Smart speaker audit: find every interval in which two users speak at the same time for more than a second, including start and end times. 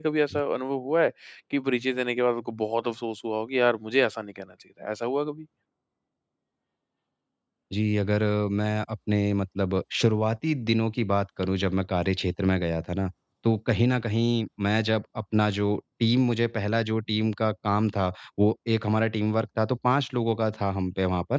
none

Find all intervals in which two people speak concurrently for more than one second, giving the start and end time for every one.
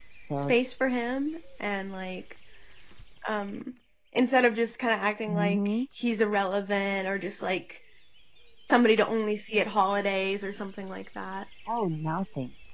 none

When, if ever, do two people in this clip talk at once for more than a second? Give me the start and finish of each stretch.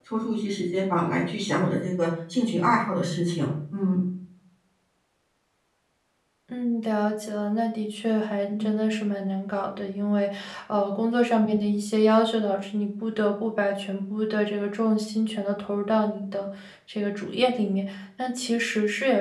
none

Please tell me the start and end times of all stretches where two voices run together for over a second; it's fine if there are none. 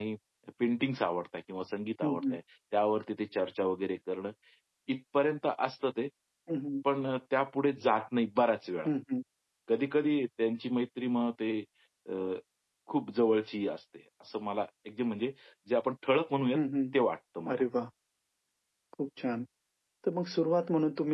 none

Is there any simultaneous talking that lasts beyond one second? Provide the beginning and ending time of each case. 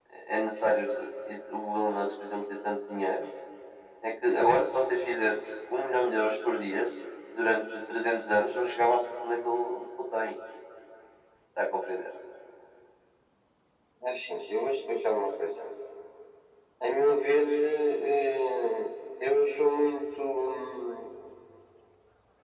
none

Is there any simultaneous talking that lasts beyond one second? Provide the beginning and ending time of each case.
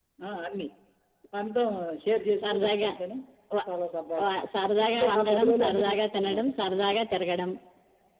4.9-6.4

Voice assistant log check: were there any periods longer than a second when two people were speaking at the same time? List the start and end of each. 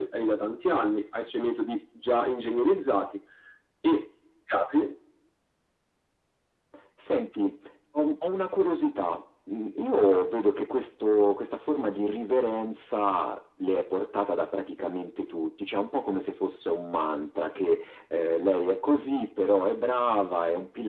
none

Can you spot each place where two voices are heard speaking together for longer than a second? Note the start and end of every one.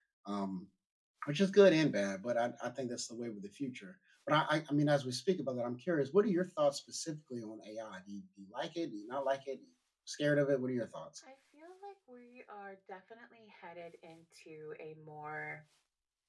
none

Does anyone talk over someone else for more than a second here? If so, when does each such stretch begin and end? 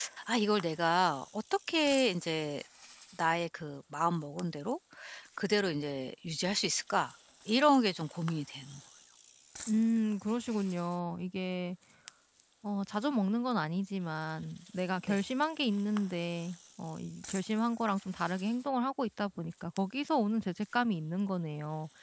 none

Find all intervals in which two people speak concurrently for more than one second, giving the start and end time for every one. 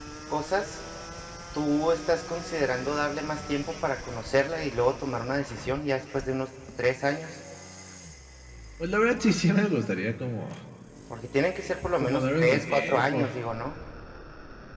12.0-13.2

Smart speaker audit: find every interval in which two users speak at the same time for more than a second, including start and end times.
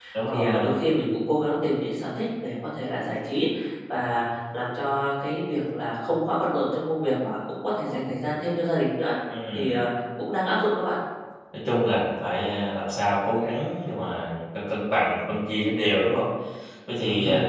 none

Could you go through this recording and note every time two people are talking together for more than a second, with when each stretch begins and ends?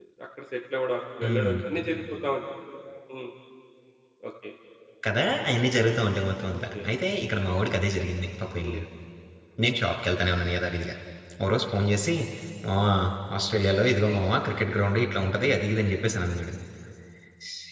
none

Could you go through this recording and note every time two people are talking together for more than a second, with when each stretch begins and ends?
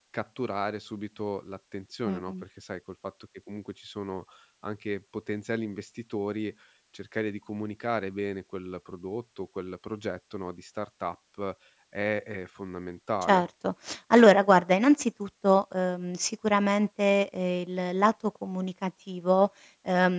none

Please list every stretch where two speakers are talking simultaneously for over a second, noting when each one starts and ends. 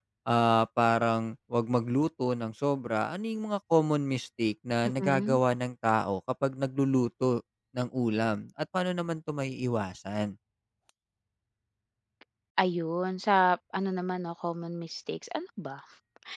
none

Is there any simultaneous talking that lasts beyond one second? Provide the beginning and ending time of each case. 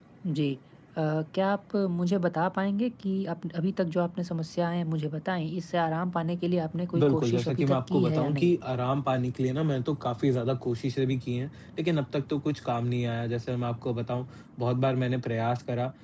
7.0-8.5

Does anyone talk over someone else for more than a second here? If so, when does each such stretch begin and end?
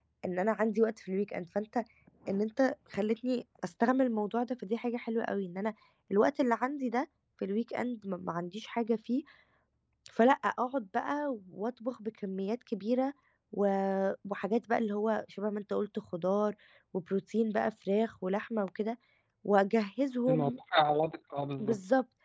none

